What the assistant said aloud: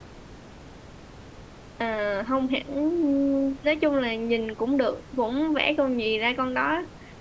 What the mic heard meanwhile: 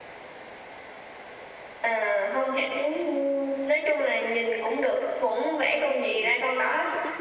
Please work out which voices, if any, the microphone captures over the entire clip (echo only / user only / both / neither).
both